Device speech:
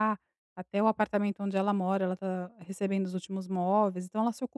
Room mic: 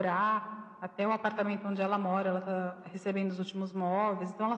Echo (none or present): present